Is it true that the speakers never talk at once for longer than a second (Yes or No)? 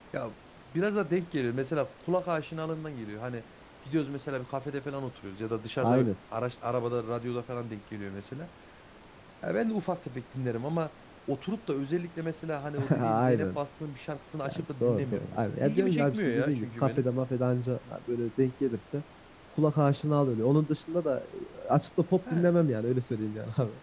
No